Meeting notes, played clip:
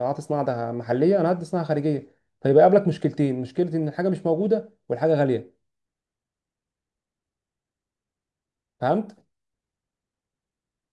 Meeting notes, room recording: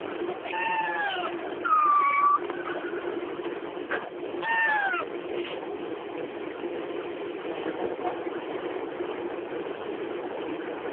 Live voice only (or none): none